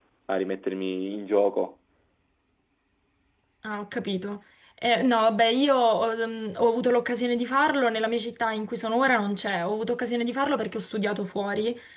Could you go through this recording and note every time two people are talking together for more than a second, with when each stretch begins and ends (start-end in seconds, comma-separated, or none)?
none